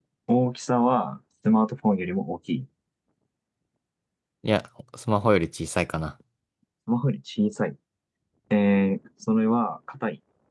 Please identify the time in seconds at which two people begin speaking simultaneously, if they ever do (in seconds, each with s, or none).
none